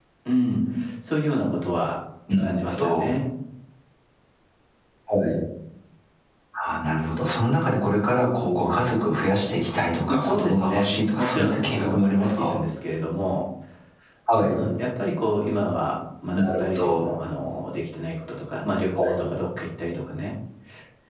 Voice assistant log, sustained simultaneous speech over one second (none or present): present